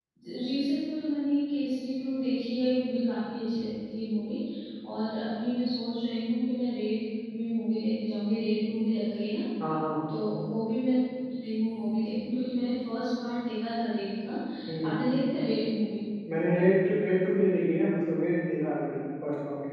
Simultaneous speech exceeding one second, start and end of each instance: none

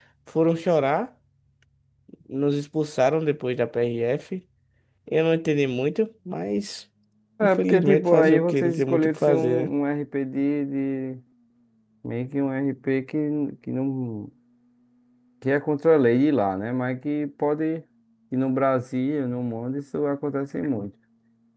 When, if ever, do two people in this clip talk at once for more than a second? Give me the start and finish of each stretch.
7.4-9.7

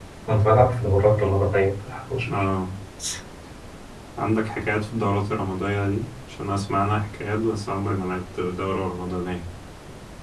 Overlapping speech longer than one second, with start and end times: none

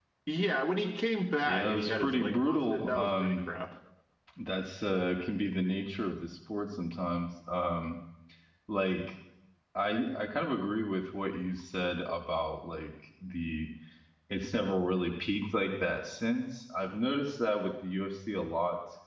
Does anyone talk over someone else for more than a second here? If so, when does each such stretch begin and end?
1.4-3.4

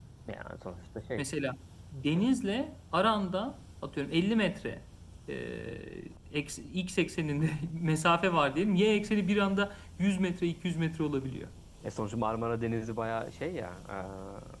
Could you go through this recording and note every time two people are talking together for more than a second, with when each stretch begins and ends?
none

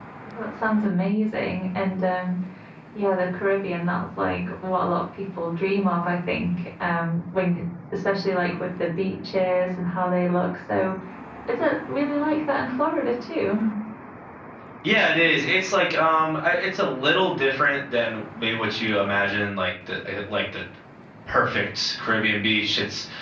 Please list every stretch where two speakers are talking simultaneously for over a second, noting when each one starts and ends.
none

